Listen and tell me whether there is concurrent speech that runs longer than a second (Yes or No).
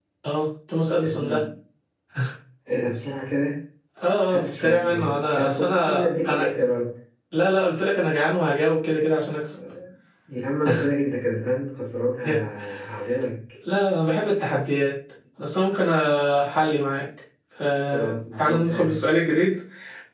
Yes